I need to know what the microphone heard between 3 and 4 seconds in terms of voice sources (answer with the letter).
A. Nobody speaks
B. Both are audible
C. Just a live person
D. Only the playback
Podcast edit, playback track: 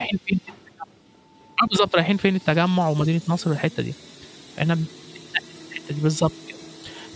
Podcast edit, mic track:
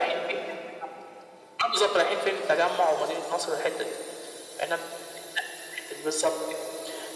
D